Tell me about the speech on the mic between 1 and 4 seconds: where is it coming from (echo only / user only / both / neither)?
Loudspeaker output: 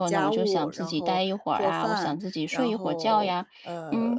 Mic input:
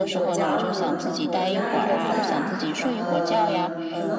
both